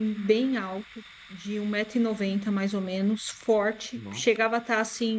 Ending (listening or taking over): listening